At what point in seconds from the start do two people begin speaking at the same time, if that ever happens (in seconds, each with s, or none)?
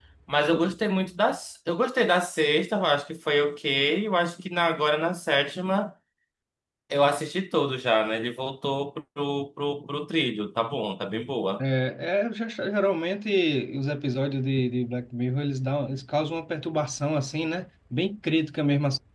none